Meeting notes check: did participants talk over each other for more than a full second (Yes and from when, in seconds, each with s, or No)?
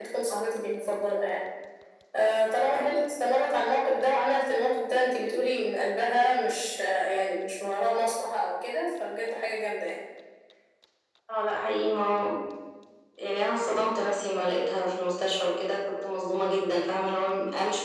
No